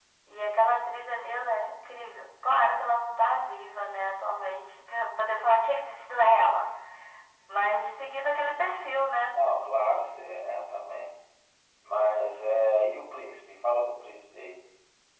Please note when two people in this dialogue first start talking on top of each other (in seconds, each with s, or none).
none